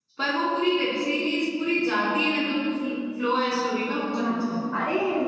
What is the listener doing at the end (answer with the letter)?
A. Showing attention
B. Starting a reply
B